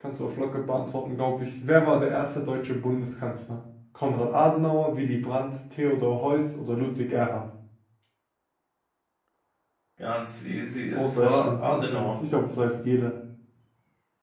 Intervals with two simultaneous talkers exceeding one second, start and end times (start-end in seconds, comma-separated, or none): 10.9-12.1